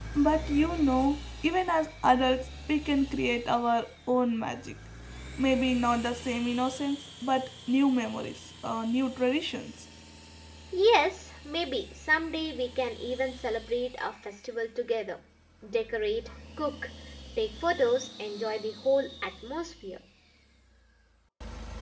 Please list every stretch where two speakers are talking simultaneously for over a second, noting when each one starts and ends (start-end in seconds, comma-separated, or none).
none